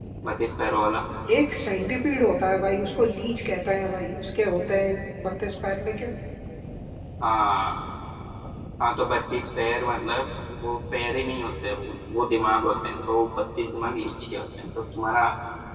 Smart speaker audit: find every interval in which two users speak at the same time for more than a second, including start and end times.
none

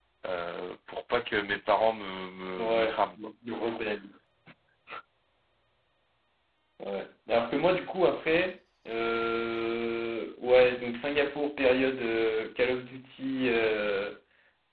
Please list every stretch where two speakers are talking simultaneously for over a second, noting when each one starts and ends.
none

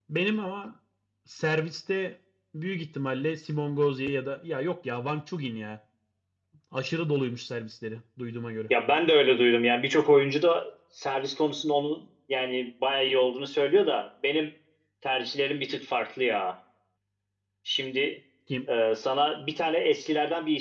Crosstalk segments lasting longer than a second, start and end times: none

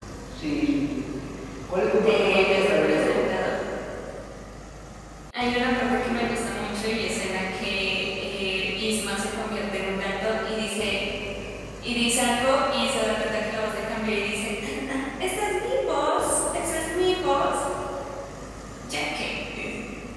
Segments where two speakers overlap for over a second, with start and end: 1.9-3.2

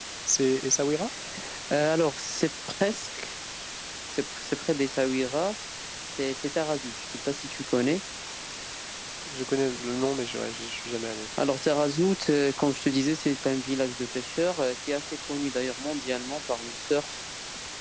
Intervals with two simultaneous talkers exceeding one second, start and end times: none

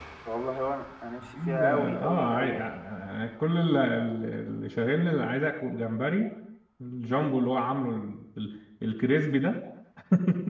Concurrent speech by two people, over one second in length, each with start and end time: 1.2-2.6

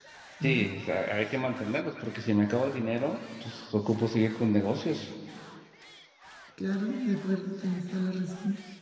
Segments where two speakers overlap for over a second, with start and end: none

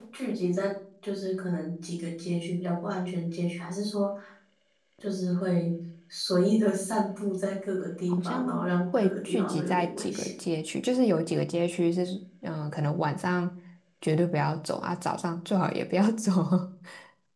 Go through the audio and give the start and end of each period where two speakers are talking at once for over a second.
8.1-10.3

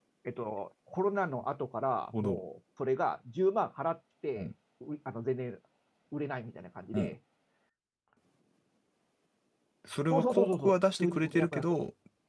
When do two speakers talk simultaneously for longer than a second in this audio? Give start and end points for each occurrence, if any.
10.1-11.7

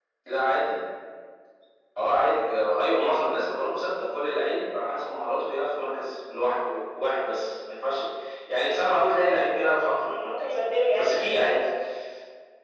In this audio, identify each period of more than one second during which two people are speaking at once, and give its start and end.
10.0-11.7

